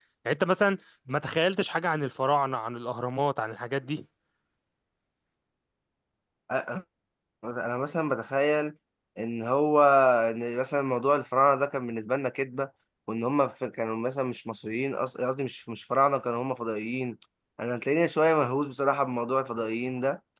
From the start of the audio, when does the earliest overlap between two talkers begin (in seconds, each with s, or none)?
none